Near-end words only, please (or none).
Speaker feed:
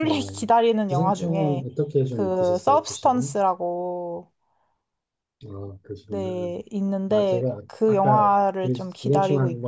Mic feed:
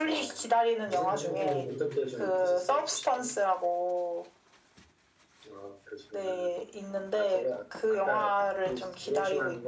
뭐, 그리고 또